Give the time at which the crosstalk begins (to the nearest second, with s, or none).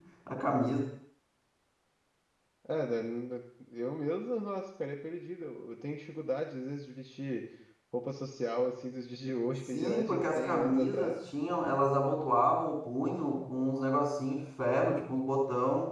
10 s